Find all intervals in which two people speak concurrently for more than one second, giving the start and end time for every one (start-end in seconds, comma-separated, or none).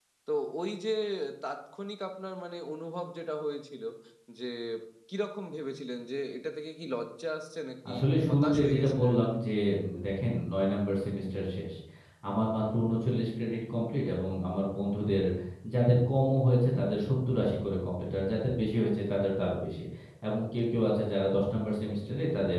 7.9-9.4